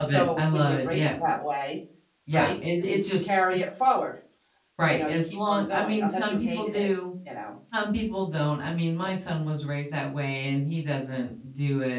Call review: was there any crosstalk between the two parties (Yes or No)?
Yes